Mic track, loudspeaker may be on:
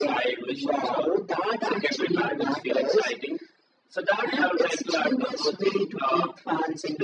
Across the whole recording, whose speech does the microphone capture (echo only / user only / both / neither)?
echo only